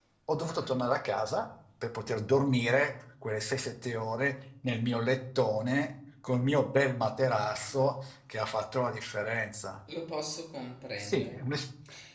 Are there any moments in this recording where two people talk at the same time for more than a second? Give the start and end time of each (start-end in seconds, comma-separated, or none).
none